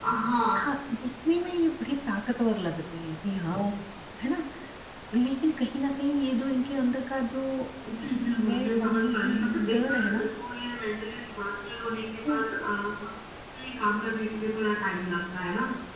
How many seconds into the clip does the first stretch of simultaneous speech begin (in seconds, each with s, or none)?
8.4 s